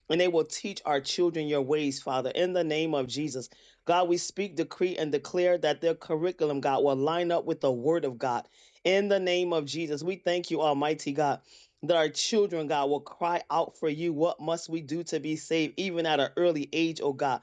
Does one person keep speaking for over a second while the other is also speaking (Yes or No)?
No